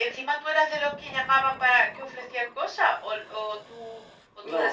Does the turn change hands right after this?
Yes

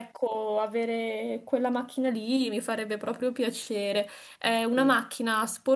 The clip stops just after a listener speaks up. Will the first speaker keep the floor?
Yes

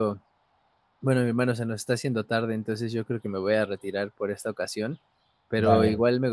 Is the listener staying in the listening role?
Yes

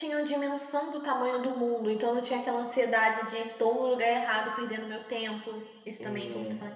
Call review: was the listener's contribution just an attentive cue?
No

